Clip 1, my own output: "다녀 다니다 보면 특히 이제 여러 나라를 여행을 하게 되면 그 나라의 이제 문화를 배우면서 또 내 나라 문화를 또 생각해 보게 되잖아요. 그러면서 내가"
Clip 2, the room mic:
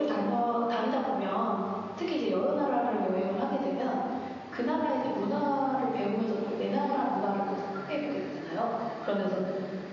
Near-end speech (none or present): none